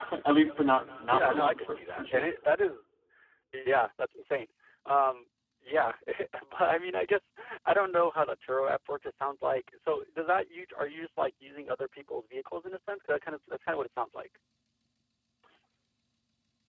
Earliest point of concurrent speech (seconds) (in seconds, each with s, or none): 1.1 s